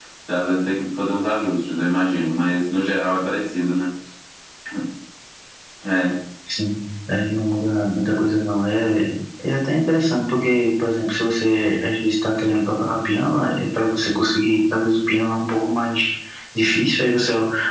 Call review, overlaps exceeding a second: none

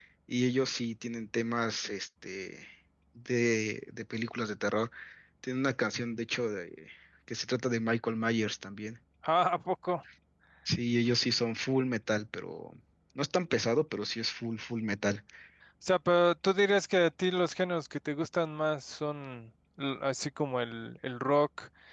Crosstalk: none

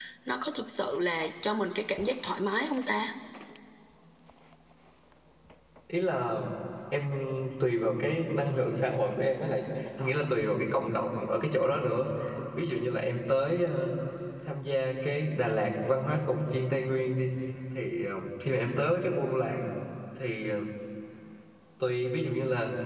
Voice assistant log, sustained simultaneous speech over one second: none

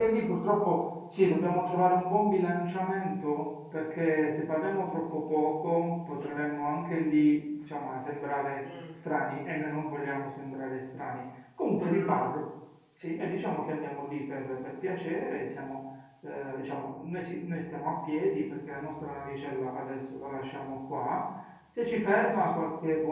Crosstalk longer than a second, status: none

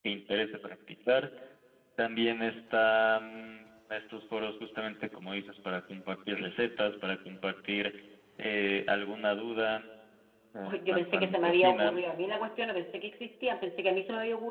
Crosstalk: present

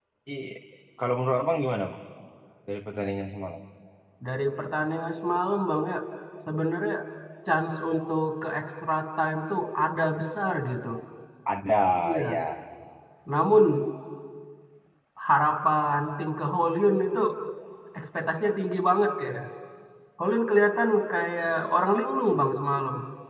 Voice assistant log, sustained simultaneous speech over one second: none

